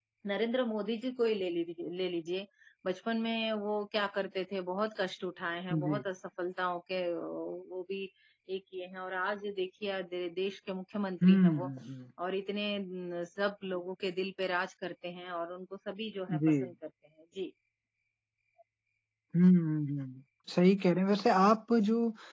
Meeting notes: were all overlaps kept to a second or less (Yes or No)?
Yes